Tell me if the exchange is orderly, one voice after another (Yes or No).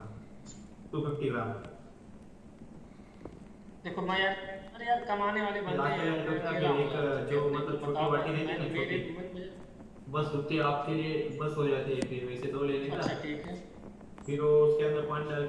No